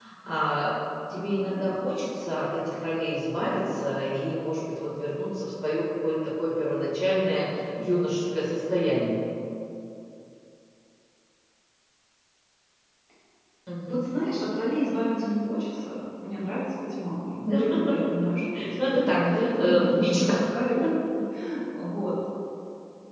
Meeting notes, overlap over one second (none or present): present